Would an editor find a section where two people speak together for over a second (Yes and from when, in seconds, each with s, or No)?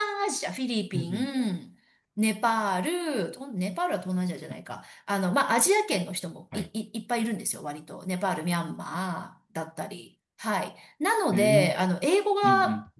No